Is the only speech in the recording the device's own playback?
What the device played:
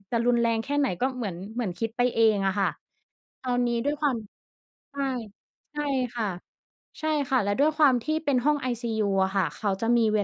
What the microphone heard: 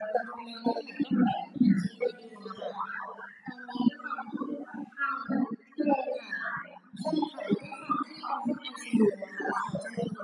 Yes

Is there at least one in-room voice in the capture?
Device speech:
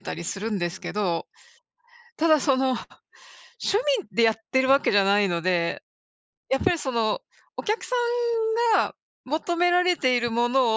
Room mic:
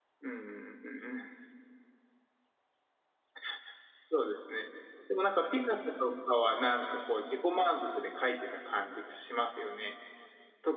Yes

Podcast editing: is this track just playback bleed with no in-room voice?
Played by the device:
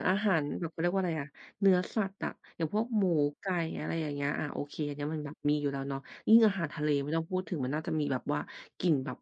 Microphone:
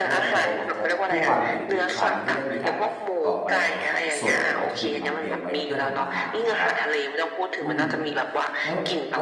No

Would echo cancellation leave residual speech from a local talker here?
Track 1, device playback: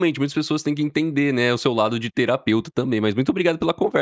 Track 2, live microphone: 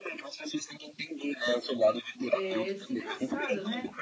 Yes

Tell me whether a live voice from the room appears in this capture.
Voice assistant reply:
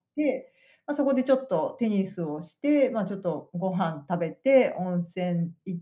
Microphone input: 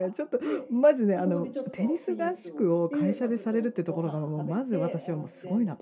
Yes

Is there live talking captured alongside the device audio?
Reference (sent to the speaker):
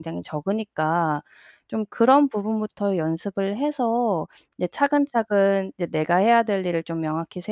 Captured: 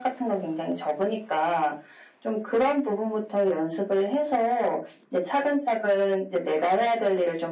No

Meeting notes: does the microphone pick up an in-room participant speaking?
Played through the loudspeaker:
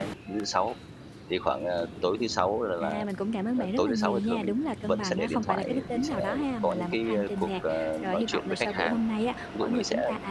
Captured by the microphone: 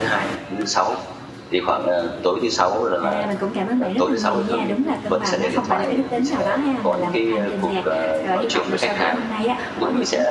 No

